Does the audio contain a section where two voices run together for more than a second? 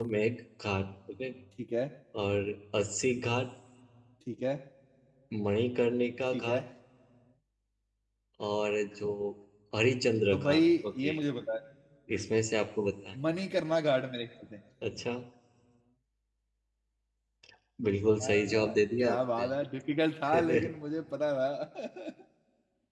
Yes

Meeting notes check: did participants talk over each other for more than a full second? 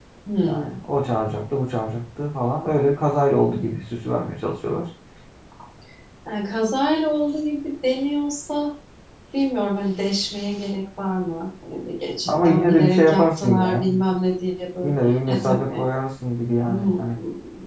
Yes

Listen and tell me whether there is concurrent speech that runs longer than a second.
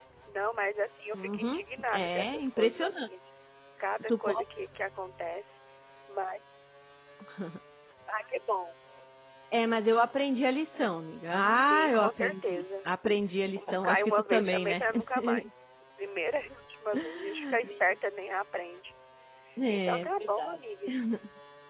Yes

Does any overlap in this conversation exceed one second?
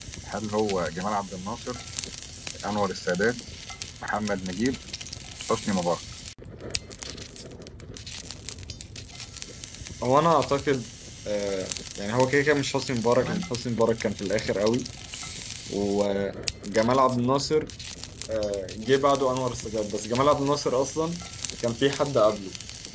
No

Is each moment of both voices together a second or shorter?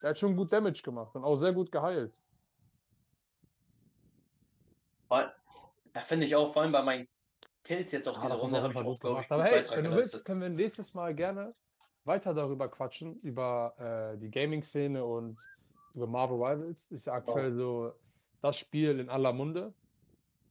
No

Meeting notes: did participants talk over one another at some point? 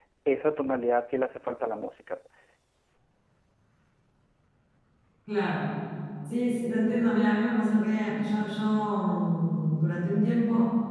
No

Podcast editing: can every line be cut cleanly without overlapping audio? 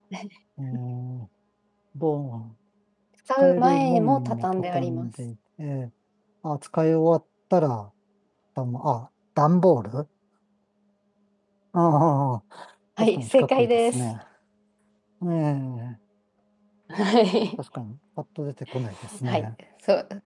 No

